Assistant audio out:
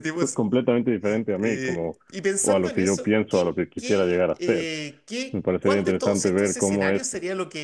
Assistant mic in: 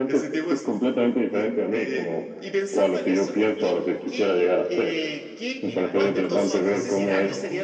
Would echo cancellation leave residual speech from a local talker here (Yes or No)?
Yes